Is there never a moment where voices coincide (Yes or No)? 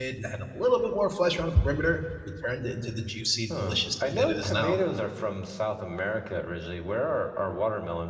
No